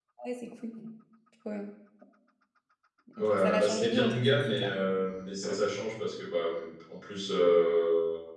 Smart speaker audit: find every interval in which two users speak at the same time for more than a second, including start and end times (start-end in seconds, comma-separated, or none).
3.2-4.7